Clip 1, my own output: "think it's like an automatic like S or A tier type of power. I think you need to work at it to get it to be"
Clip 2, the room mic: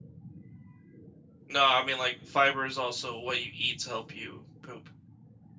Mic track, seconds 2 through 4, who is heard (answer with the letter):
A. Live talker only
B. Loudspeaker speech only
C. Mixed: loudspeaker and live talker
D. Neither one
A